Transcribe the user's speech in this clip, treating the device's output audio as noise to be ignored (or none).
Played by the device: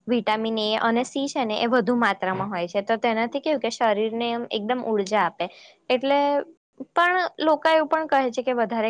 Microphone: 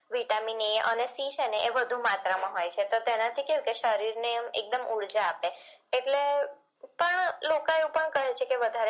none